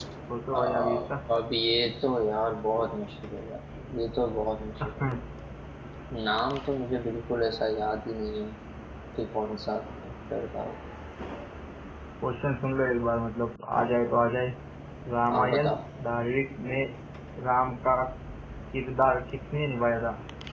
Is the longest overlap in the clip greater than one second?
No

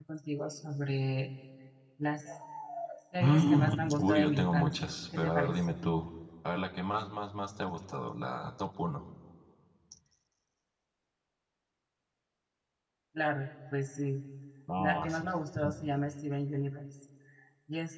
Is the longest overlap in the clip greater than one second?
Yes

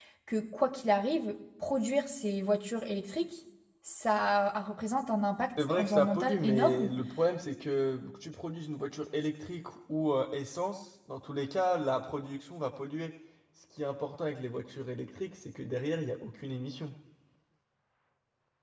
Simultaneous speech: Yes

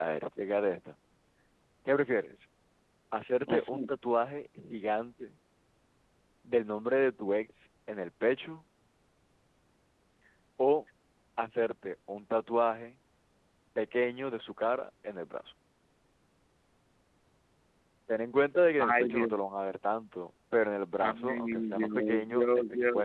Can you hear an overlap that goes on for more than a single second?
Yes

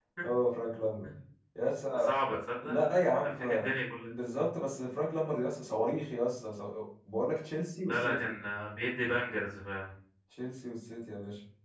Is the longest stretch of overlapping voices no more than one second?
Yes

